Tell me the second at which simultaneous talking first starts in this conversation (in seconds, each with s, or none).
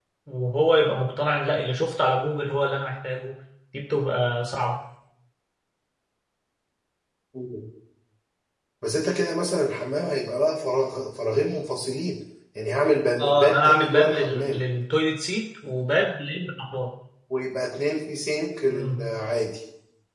13.2 s